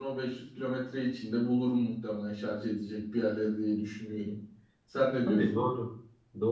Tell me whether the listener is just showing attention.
No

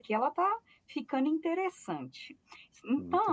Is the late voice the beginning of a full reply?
No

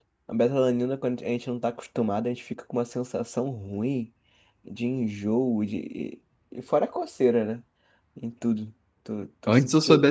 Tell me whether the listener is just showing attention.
No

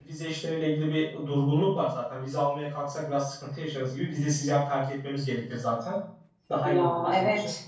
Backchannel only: No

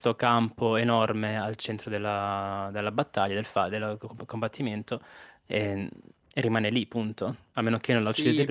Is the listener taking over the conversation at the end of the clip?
Yes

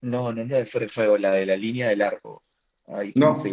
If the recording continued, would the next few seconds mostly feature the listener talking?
Yes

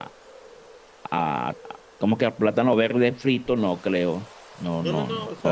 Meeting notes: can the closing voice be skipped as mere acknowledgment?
No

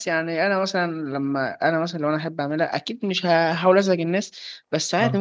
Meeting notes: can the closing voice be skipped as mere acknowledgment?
Yes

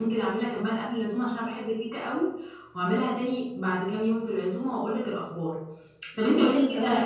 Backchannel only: Yes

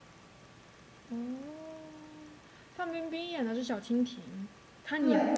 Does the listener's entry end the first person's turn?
No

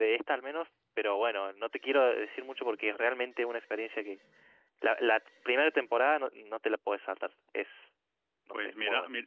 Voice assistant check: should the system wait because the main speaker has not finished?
No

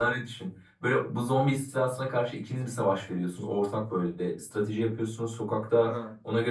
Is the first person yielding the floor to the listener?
No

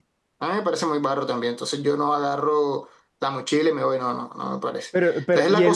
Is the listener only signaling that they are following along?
No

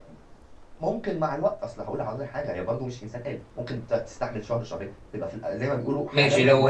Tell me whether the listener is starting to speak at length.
Yes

